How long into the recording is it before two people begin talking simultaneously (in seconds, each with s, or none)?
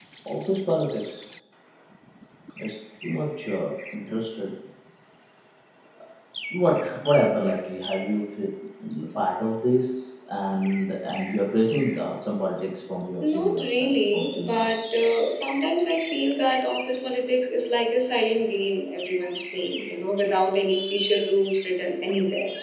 13.2 s